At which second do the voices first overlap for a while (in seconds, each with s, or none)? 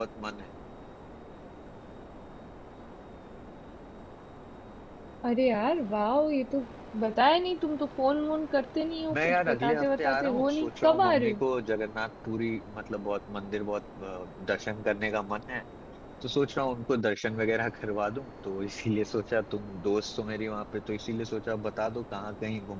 9.1 s